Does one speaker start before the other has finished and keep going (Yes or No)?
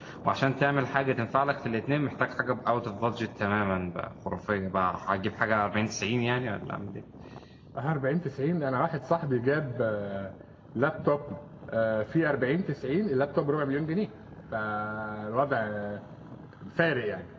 No